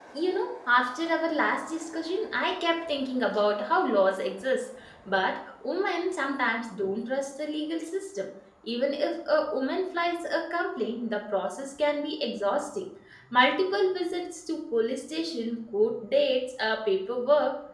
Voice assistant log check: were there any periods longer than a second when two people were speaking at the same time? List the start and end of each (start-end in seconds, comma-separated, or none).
none